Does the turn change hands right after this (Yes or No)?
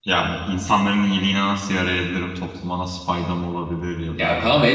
Yes